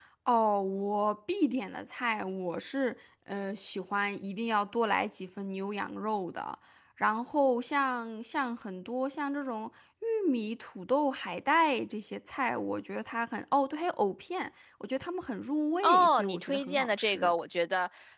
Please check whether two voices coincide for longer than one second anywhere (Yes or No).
Yes